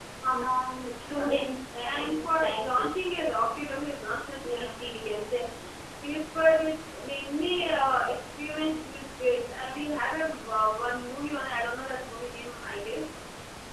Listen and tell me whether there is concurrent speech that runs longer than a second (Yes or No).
Yes